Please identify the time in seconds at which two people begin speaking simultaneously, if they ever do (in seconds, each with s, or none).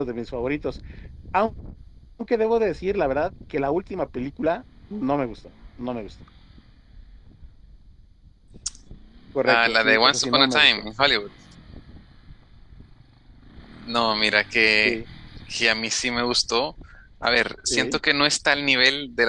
9.5 s